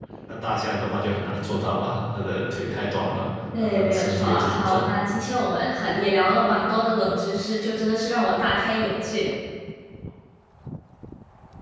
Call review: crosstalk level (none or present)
present